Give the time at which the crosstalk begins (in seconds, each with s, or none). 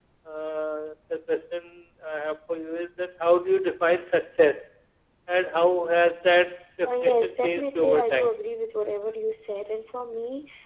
6.8 s